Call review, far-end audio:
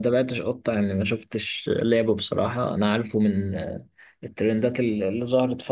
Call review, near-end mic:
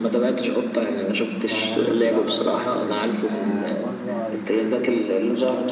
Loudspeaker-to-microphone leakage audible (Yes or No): Yes